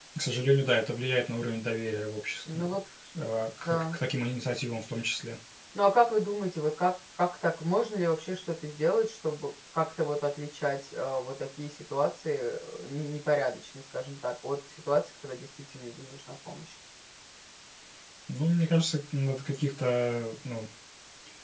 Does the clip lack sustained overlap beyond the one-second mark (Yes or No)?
Yes